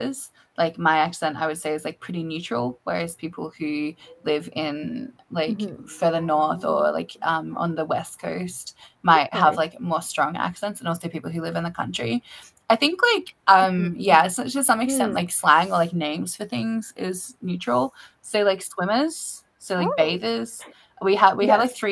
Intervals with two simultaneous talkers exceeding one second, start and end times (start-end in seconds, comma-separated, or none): none